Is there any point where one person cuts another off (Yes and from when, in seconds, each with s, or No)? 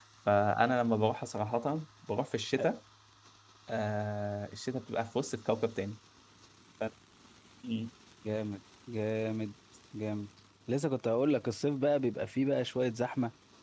No